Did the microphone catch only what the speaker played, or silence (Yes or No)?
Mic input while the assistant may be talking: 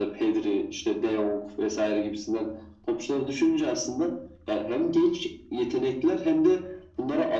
Yes